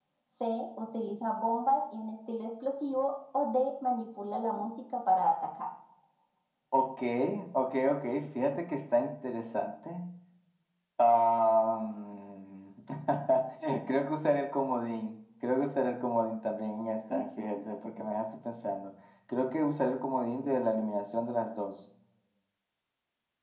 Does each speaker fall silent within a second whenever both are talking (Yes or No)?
Yes